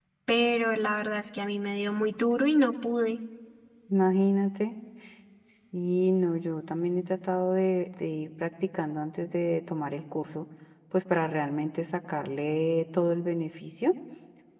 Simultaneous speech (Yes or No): No